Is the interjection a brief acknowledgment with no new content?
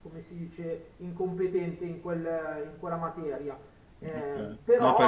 No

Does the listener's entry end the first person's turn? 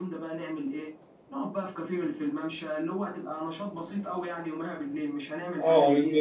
Yes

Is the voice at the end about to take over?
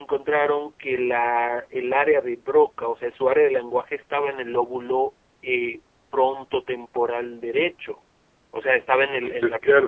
No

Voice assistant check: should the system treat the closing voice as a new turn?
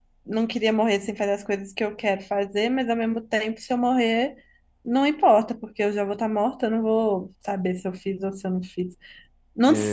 No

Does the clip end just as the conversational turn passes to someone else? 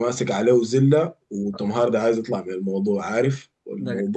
No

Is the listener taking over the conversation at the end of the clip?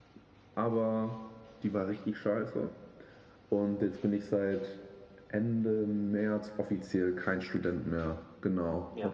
No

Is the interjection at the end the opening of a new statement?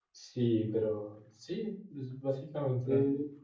No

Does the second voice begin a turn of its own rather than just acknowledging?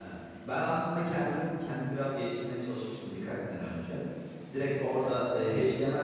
No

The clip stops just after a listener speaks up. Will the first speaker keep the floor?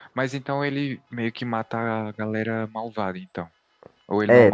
No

